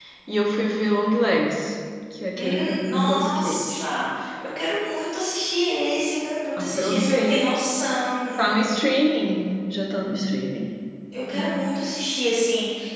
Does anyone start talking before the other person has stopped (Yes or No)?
Yes